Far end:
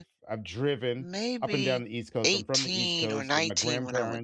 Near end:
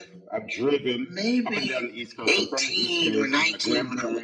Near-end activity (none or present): none